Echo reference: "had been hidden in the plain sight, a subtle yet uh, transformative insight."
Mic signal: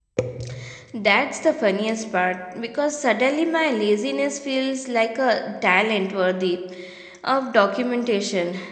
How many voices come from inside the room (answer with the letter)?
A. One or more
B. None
A